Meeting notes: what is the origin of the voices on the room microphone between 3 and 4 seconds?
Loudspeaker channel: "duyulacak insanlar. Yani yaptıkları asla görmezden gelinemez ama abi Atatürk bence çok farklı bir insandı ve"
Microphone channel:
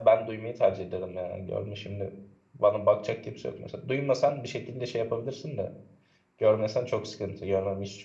user only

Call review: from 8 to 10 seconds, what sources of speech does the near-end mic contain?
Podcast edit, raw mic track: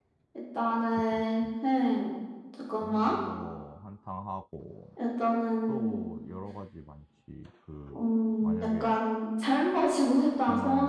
both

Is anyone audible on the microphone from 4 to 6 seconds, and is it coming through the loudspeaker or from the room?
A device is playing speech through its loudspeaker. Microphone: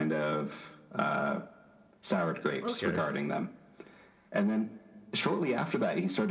echo only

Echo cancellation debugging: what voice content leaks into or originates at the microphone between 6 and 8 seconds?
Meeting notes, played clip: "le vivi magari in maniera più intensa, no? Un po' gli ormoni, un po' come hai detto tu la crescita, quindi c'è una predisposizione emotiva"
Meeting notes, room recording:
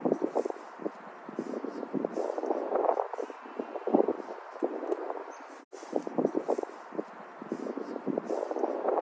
neither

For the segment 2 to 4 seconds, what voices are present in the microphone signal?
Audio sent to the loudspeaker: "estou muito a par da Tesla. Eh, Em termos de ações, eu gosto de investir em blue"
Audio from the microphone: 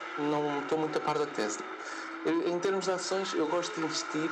echo only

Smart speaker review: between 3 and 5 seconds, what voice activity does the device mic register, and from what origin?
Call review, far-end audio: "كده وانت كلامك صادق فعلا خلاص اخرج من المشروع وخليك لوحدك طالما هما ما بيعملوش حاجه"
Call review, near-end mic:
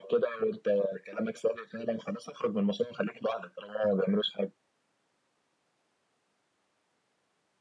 echo only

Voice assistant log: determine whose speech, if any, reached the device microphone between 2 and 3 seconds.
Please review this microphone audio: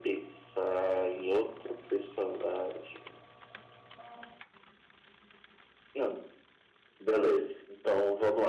echo only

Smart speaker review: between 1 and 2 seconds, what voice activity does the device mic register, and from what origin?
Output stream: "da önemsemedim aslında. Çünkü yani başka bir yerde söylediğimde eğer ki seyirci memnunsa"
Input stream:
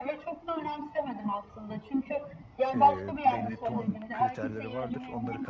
echo only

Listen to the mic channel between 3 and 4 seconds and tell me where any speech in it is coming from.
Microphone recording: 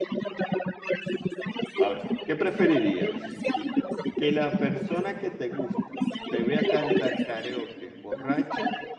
both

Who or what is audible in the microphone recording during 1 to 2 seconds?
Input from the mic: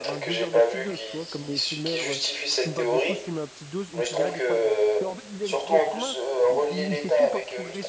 both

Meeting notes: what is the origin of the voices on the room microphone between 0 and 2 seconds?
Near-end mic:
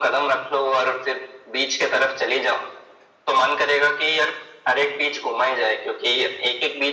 echo only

